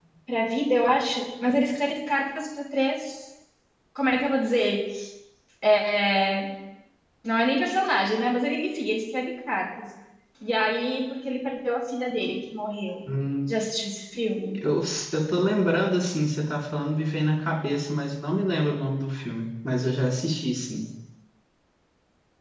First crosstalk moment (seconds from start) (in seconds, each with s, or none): none